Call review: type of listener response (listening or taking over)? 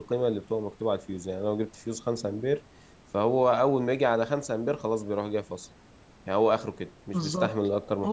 taking over